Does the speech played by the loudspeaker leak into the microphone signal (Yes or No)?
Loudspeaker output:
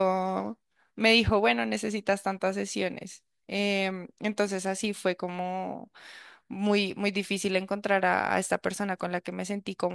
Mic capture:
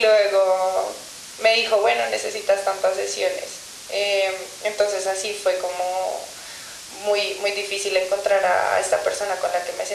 Yes